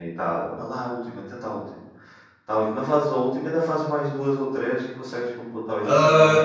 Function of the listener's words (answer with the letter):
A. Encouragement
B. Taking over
B